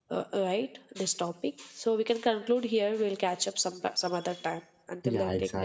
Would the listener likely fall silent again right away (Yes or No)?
No